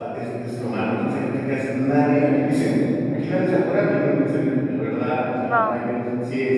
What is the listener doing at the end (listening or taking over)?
listening